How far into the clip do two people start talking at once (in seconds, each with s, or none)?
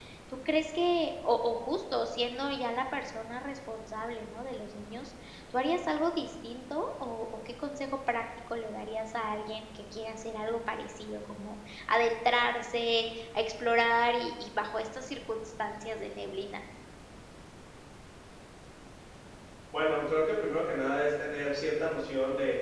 none